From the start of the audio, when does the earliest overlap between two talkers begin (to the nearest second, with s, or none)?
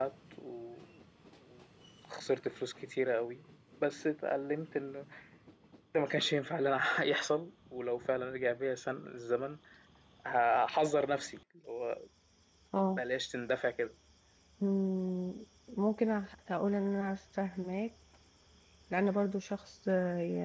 none